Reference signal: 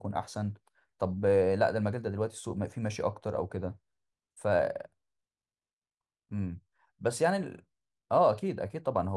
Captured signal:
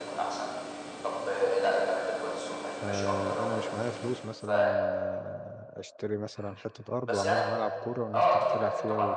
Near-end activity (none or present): present